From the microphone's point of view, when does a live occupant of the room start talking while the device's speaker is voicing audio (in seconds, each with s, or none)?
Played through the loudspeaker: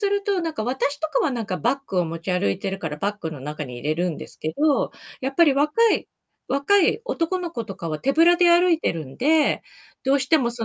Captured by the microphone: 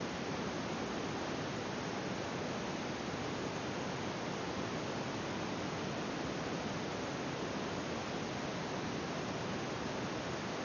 none